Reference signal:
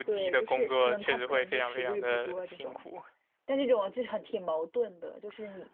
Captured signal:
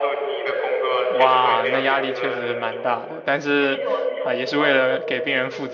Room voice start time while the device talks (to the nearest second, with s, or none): 1 s